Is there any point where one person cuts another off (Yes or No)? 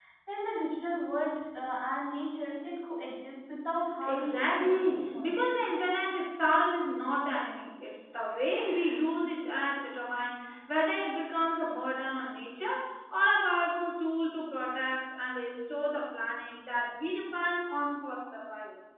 Yes